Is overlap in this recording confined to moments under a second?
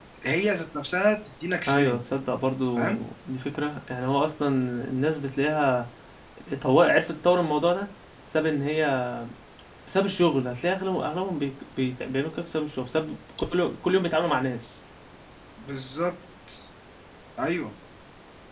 Yes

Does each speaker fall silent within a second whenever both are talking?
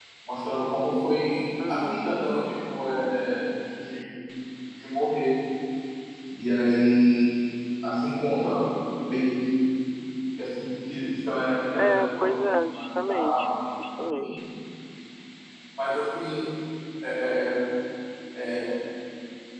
No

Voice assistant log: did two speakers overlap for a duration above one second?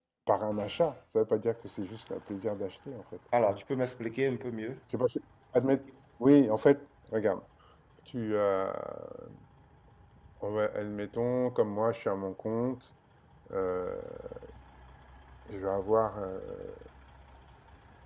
No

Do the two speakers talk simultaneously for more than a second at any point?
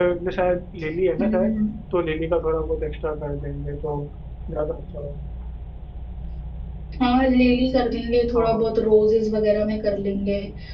No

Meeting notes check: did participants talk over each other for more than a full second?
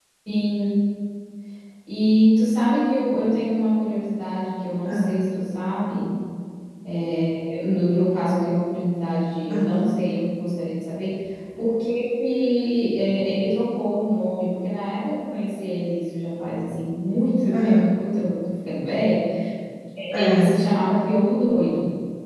No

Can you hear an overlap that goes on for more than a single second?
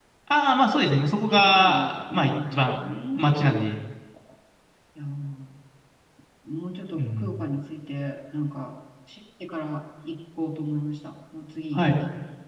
Yes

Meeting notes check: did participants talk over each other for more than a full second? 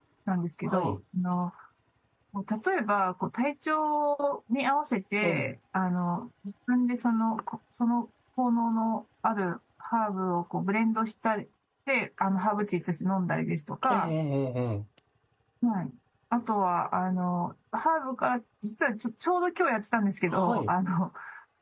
No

